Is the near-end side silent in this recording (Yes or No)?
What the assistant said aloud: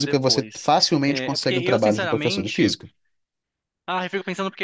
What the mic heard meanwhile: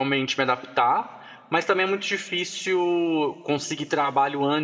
No